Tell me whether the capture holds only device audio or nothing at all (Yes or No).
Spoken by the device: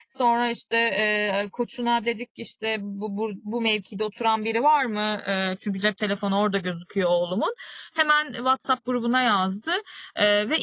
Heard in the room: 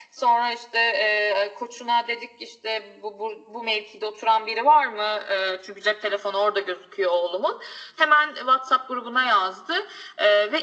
Yes